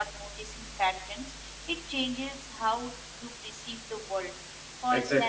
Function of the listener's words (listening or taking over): taking over